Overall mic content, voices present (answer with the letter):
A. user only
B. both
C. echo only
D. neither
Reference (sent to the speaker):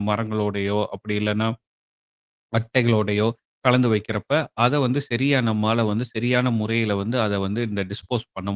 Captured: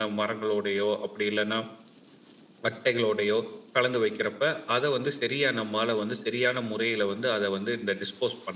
C